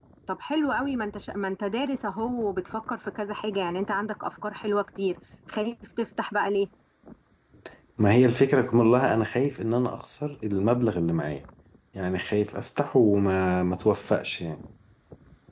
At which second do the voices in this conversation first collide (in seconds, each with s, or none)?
none